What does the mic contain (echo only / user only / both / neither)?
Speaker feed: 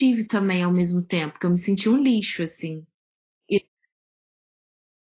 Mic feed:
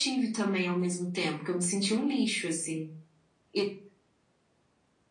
echo only